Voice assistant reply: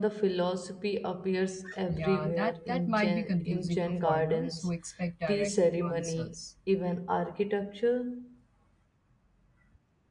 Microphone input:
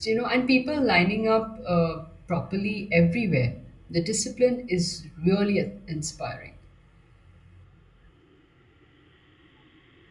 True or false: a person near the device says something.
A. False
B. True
B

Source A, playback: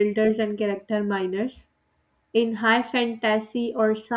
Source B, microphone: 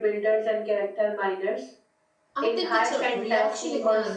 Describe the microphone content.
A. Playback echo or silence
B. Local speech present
B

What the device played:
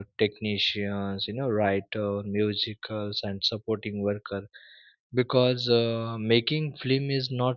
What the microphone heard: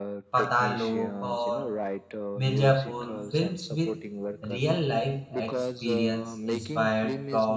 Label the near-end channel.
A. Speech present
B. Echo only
A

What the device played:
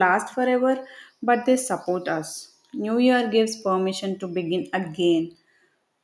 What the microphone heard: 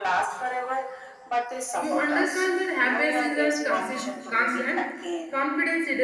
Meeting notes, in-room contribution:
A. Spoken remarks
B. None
A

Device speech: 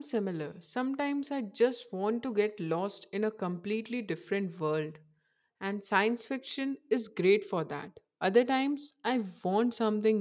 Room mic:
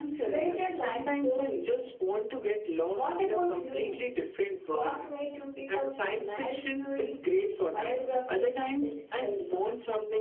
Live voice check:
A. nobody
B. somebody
B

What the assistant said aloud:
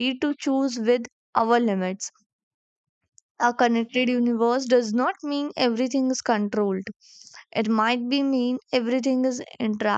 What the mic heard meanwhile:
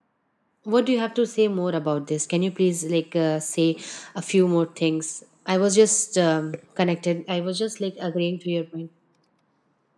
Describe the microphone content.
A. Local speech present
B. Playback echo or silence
A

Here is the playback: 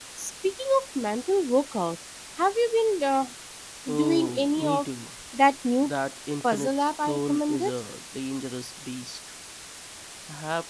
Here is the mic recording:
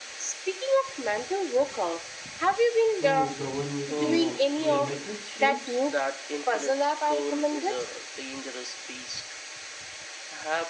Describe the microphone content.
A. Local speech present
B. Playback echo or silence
A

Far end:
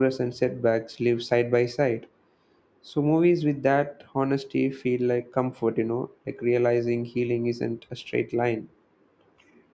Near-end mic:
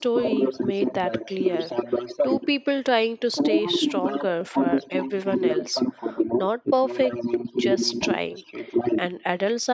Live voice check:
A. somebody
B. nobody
A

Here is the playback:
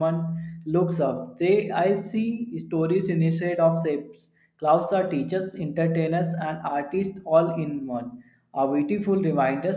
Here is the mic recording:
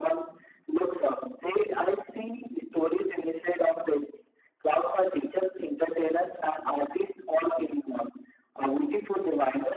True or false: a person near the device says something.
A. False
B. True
A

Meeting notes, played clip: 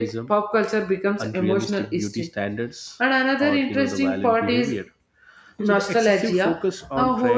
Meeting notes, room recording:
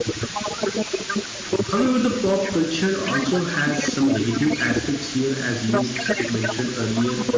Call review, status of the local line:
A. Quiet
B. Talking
B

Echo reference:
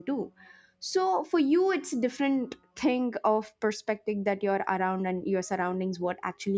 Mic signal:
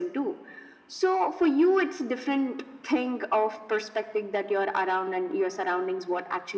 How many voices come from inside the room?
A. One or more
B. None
B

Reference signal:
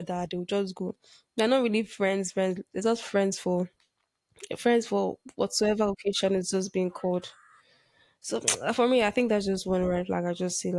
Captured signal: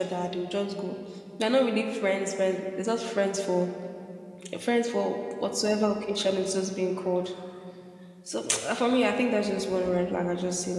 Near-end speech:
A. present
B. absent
B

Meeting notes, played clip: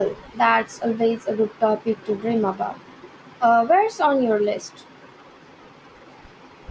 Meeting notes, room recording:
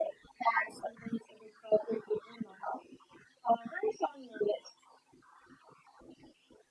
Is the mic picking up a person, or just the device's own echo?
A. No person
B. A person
A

